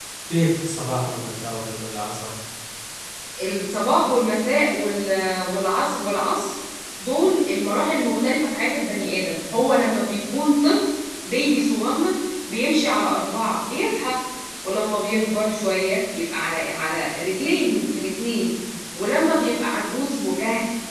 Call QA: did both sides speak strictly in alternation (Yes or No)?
Yes